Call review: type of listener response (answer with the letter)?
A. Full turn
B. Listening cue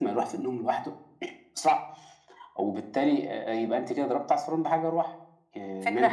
A